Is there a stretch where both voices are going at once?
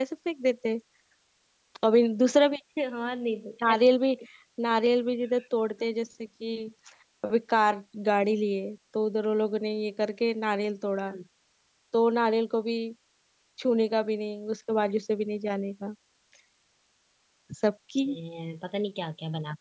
No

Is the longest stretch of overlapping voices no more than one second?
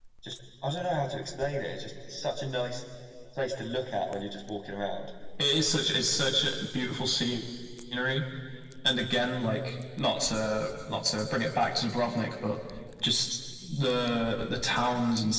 Yes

